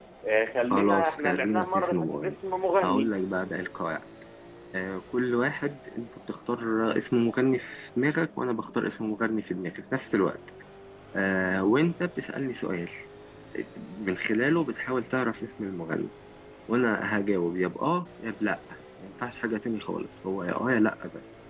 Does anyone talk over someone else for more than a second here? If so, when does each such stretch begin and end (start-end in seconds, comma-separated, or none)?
0.7-2.4